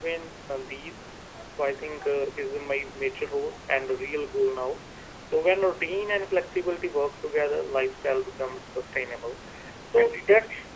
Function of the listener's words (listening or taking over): listening